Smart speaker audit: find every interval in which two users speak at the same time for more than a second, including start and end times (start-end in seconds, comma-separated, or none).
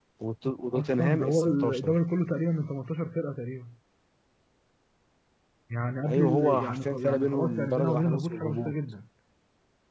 0.7-2.0, 6.1-8.7